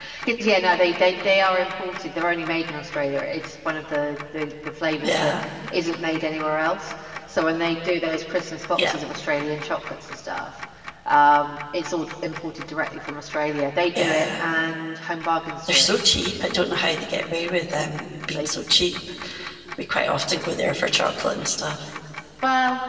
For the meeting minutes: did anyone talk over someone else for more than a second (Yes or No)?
No